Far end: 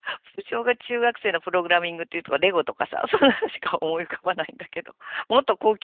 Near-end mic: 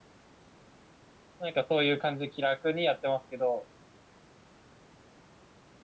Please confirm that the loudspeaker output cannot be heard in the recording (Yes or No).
Yes